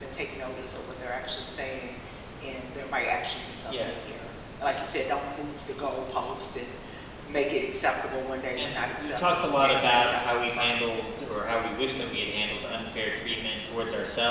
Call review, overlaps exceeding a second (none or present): present